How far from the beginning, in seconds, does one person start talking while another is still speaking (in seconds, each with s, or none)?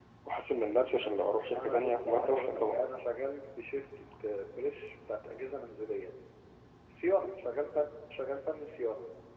1.5 s